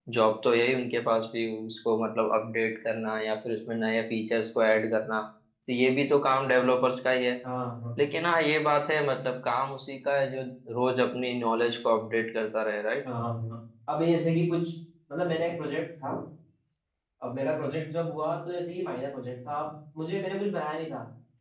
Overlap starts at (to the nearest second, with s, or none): none